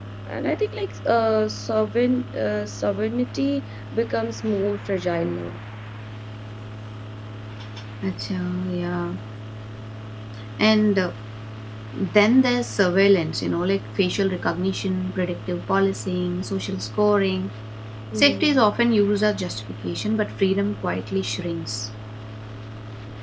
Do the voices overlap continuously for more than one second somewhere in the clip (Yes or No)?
No